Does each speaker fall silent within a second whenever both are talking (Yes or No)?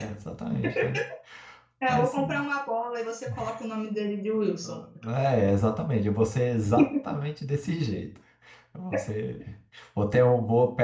Yes